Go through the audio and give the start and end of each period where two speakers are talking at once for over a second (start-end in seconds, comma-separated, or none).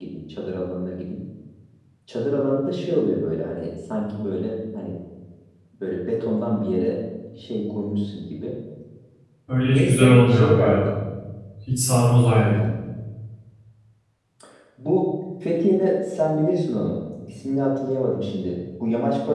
9.7-10.9